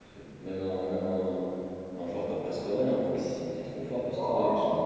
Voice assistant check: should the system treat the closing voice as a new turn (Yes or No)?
No